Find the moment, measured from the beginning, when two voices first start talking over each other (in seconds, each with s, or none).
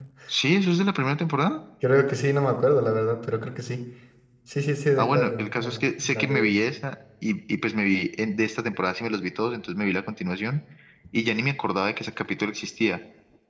5.0 s